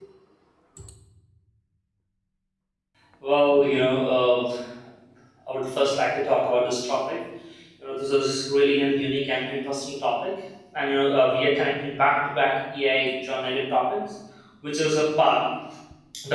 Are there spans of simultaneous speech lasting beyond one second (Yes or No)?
No